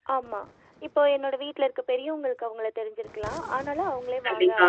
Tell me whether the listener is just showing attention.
Yes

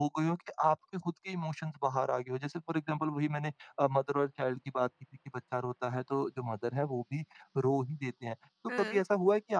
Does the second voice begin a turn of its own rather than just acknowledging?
No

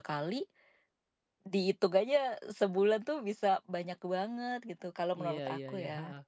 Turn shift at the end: Yes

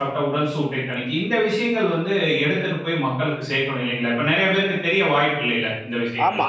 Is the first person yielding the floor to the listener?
Yes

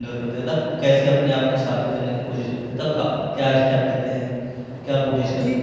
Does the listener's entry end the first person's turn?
Yes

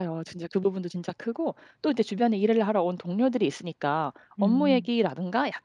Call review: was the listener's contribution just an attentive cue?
Yes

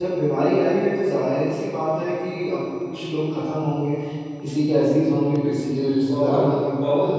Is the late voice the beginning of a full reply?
Yes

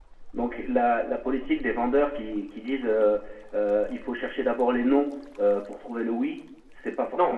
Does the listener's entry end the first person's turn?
Yes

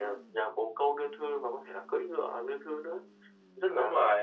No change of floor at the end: No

